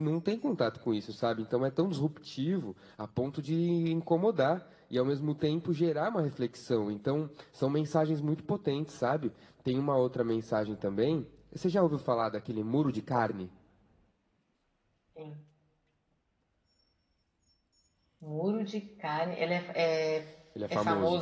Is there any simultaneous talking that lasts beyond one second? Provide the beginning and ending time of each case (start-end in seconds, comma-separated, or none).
none